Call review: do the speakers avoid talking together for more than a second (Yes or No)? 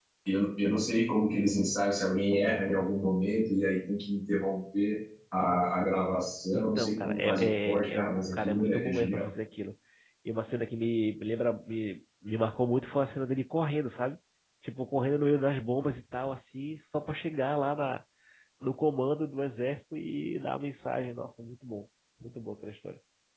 No